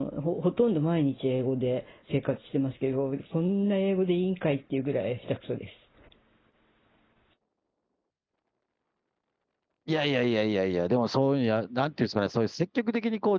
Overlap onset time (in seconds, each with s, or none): none